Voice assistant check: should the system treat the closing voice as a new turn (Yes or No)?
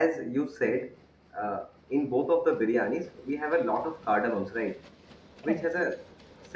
No